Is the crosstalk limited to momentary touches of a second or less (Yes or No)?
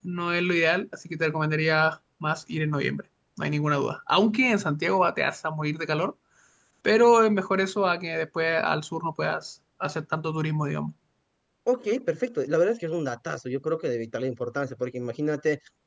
Yes